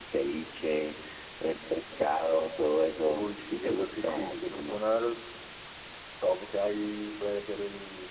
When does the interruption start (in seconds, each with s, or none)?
3.0 s